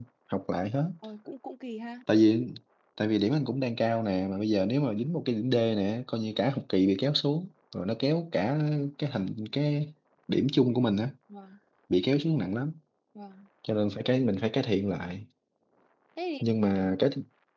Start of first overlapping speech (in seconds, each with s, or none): none